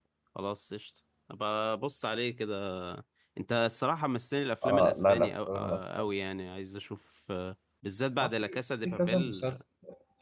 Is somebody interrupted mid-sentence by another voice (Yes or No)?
Yes